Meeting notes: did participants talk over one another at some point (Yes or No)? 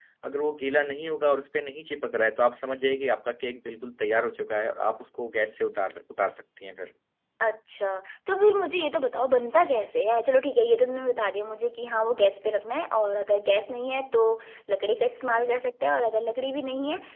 No